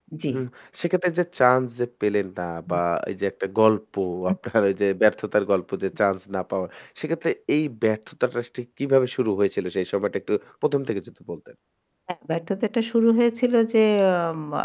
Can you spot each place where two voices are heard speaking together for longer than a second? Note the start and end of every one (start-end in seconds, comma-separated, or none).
none